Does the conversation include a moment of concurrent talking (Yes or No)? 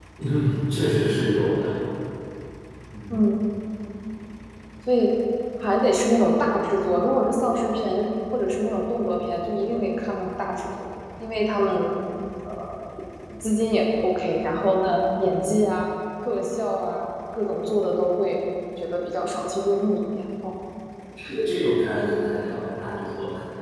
No